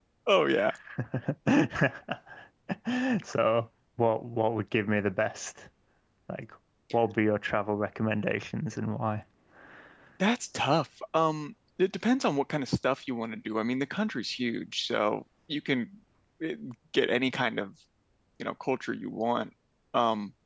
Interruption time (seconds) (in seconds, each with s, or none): none